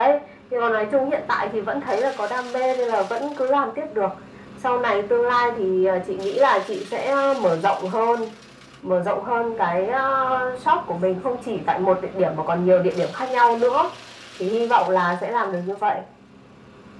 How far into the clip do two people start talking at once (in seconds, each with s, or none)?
none